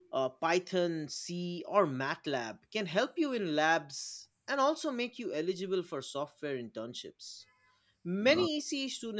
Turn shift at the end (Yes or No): No